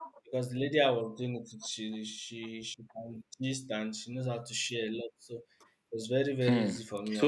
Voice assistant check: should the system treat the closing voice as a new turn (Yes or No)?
Yes